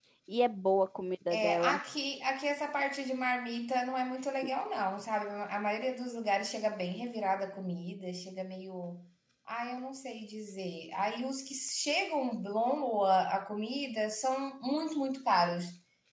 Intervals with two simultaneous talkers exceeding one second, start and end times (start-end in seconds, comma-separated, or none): none